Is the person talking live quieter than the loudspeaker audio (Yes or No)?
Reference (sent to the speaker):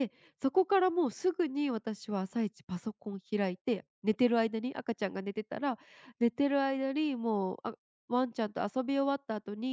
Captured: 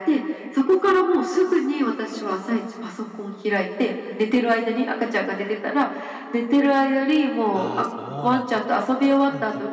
Yes